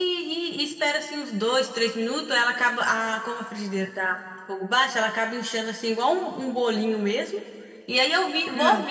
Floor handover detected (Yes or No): No